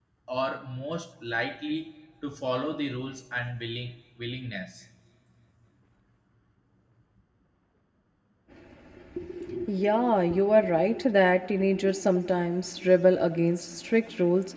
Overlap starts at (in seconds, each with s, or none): none